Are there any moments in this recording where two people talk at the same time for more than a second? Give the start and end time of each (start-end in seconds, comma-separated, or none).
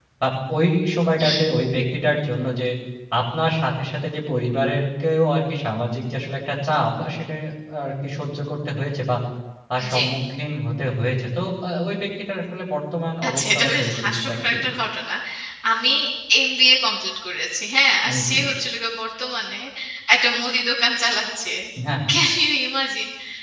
13.3-14.5